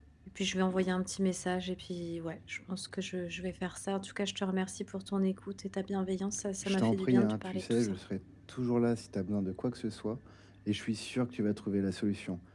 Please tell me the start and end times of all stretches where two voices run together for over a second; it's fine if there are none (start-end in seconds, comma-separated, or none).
6.6-7.9